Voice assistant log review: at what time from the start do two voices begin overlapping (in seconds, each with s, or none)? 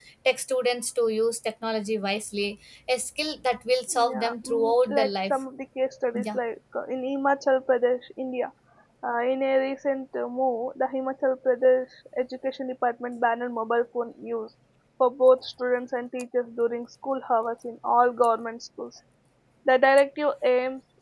3.9 s